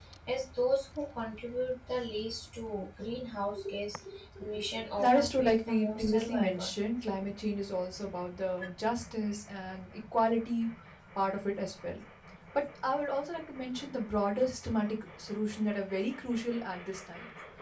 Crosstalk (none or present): present